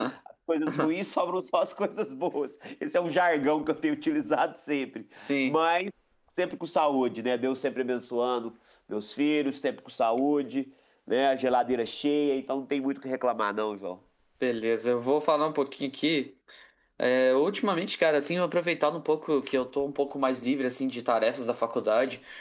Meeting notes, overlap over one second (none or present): none